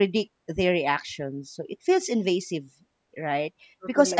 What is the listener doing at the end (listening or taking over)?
listening